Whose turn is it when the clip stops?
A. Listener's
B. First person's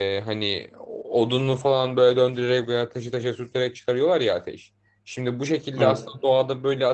B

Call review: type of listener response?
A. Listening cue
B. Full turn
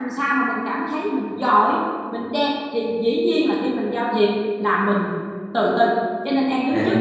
A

